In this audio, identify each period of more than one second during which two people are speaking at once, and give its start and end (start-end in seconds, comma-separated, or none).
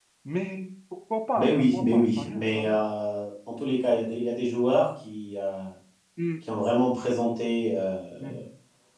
1.4-2.8